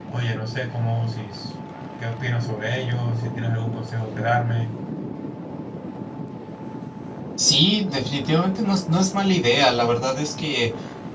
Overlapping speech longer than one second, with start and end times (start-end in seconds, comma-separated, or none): none